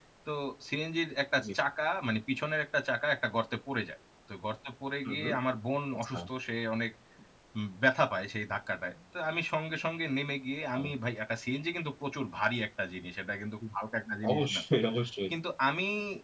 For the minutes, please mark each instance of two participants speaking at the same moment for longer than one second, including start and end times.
none

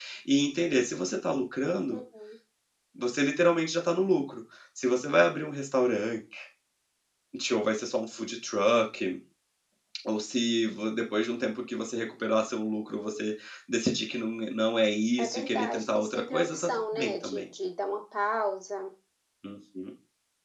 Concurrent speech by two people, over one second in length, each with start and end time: 15.2-17.4

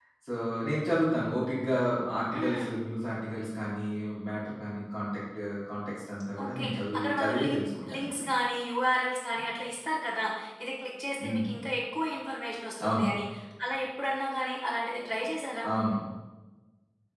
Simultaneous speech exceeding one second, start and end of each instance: 6.4-8.2

